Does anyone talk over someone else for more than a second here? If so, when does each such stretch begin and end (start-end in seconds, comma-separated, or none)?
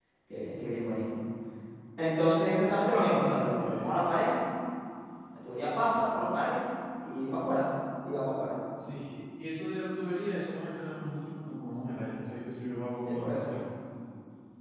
none